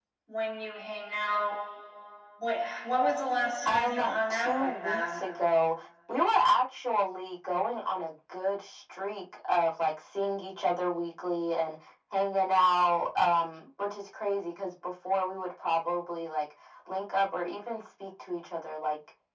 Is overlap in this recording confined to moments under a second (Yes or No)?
No